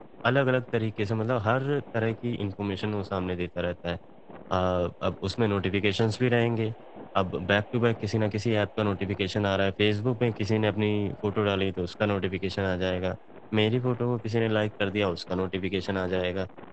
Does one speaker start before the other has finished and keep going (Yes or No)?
No